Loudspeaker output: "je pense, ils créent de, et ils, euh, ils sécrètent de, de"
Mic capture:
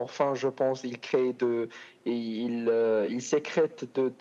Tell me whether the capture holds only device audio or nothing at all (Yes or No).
Yes